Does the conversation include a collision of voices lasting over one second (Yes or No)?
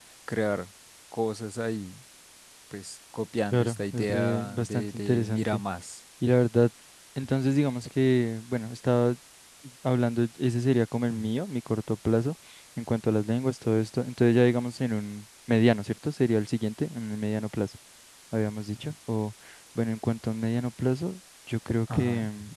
Yes